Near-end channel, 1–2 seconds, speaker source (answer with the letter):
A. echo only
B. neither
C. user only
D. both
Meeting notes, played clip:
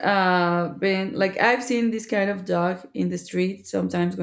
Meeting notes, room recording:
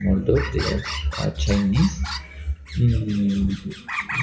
C